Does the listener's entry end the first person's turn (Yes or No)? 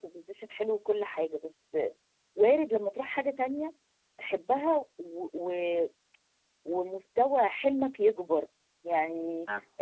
No